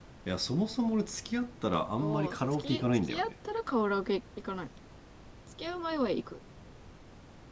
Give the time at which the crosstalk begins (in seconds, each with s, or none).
2.0 s